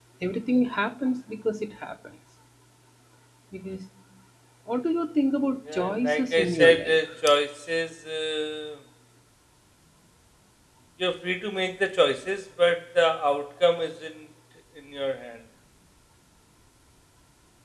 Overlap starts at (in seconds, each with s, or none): 5.7 s